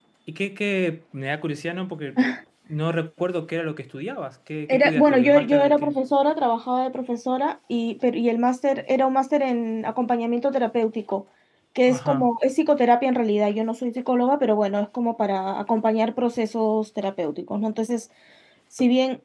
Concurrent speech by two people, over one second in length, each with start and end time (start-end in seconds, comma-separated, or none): 4.7-6.0